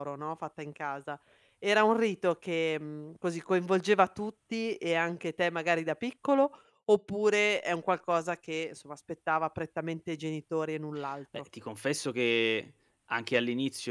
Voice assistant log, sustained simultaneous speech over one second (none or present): none